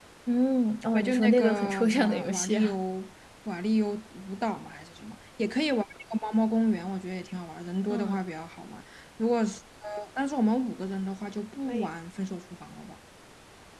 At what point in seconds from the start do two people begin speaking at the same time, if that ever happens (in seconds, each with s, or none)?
0.9 s